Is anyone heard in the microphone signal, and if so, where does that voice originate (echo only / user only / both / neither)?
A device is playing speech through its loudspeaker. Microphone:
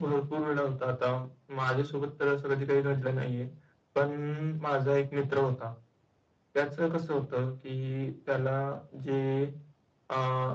echo only